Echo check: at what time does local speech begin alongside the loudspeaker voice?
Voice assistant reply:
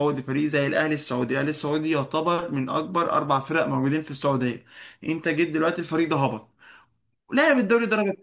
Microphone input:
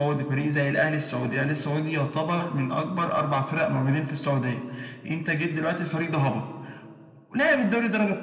none

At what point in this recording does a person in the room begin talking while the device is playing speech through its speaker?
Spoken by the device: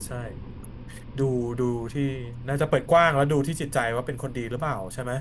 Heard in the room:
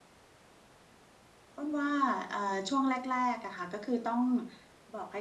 1.6 s

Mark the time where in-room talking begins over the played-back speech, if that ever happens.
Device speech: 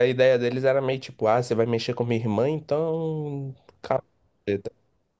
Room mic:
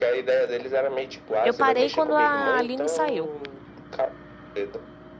1.4 s

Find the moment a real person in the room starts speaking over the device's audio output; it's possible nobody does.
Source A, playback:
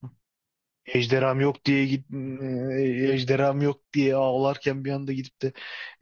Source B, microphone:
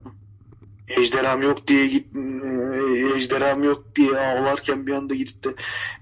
none

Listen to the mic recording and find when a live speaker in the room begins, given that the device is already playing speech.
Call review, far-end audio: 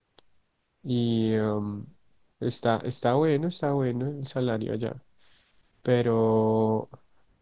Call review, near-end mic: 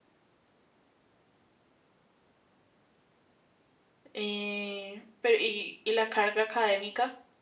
4.1 s

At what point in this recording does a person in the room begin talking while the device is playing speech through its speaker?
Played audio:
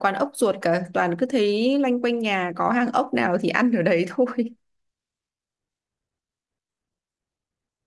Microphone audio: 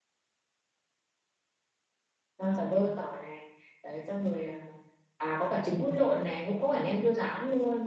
2.4 s

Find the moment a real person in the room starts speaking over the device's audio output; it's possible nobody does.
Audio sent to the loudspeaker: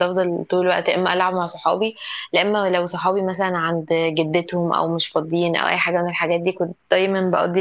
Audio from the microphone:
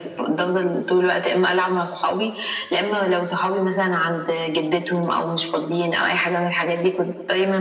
none

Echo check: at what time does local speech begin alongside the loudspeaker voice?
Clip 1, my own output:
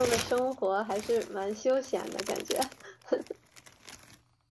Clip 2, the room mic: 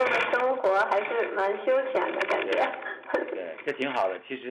2.4 s

